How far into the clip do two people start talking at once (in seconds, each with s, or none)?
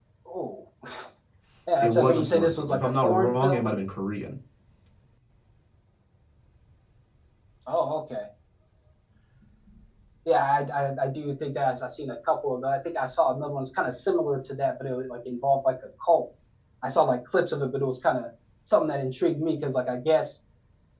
1.8 s